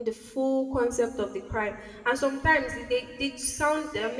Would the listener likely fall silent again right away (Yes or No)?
Yes